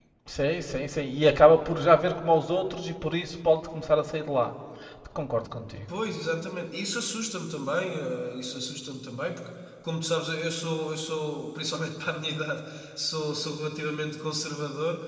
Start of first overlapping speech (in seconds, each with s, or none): none